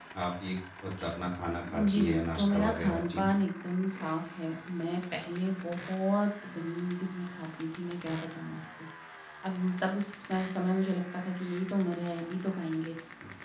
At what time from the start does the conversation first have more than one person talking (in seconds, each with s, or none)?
1.9 s